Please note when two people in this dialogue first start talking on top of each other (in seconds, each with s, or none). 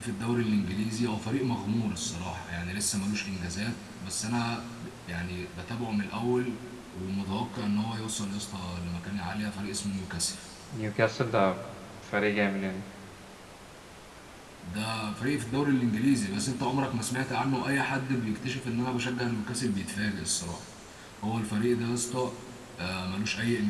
none